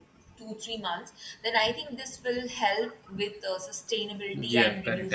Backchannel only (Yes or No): No